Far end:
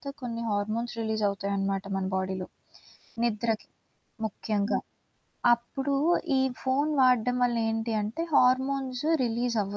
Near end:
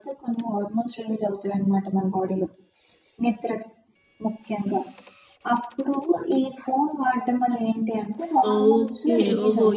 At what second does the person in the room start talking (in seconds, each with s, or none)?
8.5 s